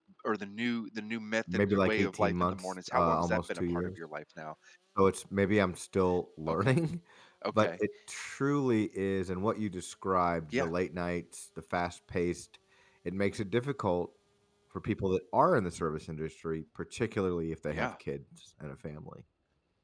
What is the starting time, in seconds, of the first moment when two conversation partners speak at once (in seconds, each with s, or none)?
1.5 s